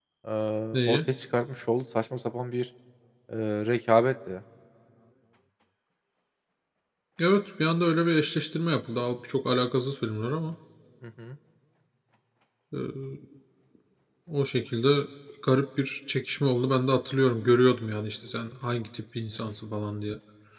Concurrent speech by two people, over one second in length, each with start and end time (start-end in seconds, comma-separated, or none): none